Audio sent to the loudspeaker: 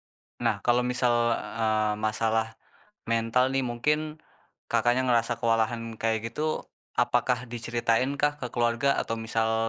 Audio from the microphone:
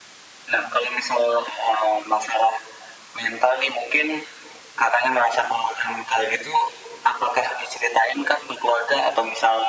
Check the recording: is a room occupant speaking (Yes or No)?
No